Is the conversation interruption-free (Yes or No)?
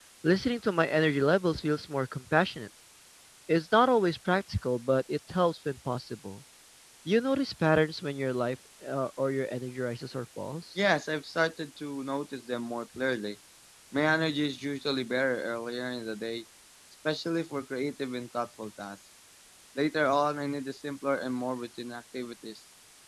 Yes